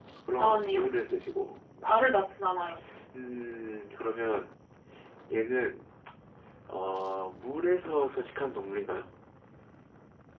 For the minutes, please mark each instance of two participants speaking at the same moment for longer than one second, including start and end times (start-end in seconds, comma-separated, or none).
none